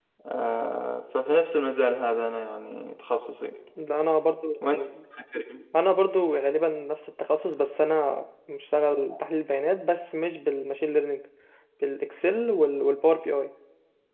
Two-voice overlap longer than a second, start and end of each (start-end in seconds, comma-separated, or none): none